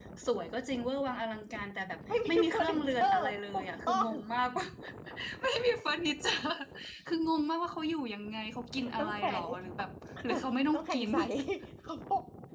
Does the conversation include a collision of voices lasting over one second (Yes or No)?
Yes